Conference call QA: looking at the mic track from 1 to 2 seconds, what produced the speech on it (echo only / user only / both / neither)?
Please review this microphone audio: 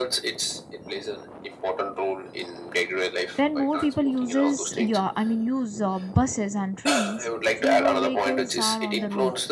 echo only